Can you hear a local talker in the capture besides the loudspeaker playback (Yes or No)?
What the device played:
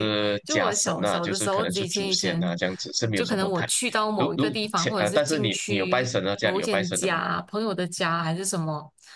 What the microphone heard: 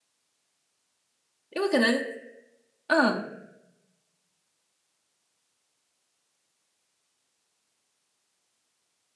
Yes